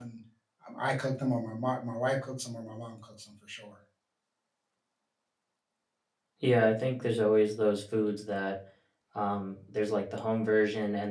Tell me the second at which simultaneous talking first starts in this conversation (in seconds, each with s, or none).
none